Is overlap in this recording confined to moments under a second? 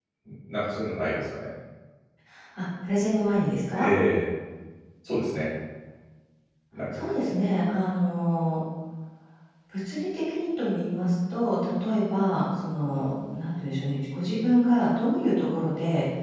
Yes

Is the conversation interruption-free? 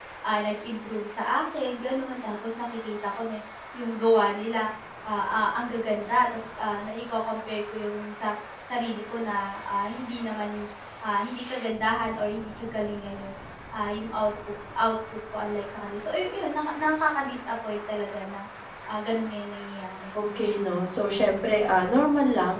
Yes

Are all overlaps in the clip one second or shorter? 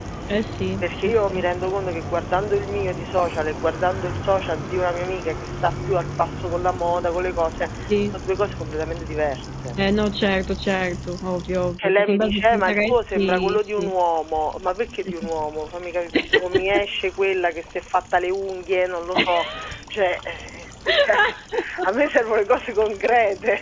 No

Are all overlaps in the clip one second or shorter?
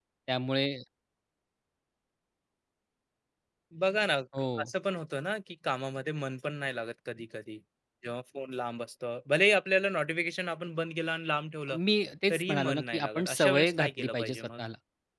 No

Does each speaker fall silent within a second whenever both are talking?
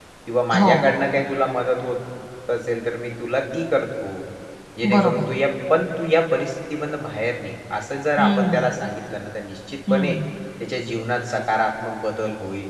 Yes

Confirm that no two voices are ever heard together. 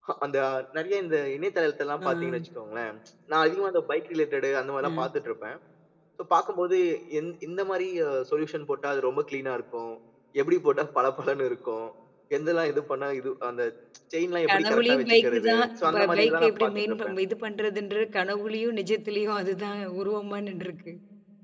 No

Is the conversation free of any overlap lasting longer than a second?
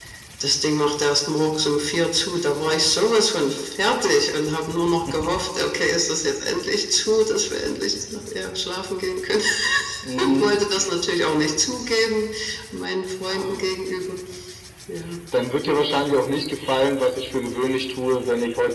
Yes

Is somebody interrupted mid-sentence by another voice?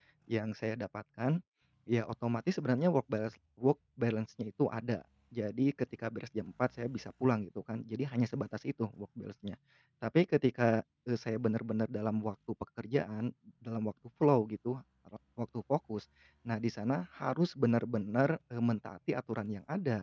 No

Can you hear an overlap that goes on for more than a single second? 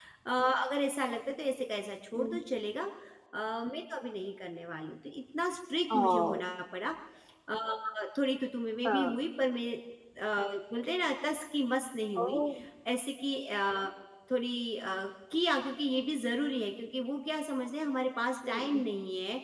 No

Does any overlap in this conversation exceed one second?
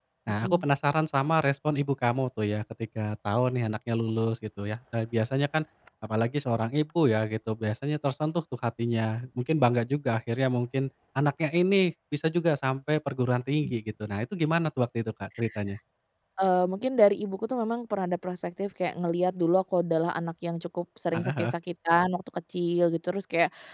No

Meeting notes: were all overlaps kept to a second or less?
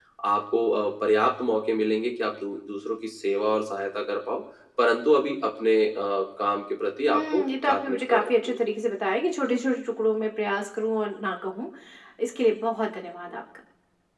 No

